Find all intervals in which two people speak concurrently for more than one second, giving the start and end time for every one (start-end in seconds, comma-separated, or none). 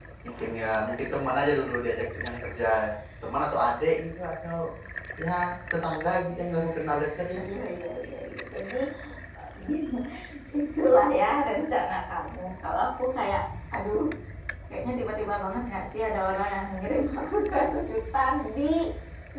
none